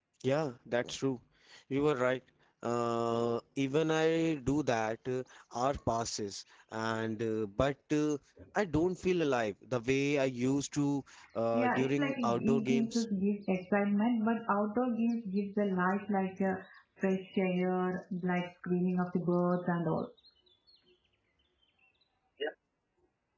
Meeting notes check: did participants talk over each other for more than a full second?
Yes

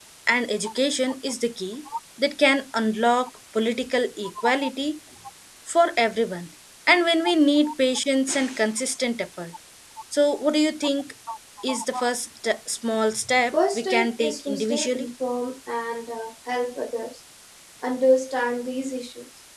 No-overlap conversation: No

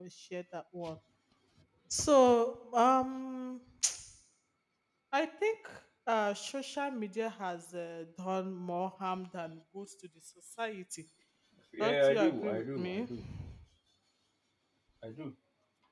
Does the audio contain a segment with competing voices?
Yes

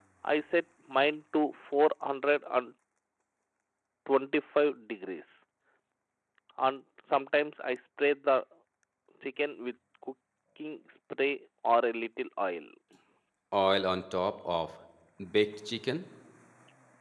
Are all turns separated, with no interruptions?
Yes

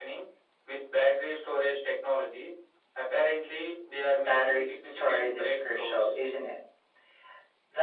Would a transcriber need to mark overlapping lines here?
Yes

